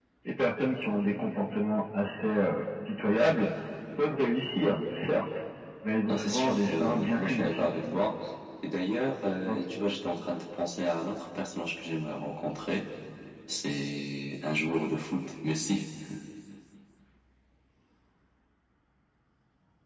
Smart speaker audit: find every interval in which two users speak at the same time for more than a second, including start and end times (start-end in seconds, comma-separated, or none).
6.1-7.6